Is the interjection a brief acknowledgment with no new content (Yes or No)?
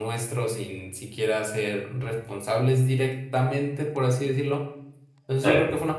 Yes